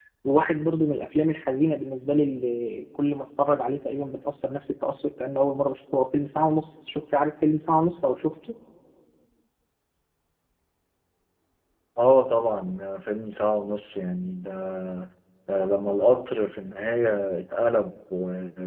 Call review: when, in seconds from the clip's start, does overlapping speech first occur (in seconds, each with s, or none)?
none